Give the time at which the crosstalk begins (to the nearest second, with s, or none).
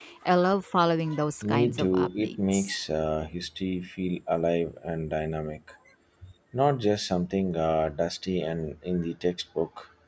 1 s